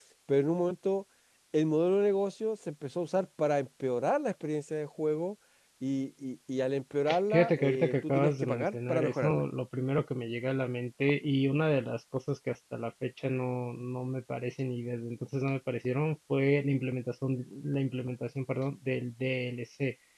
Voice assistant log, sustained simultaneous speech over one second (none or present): present